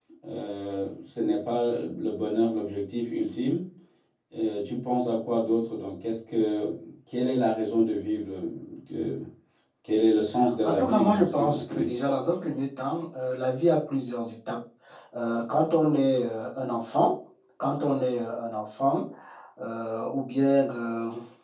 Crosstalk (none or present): present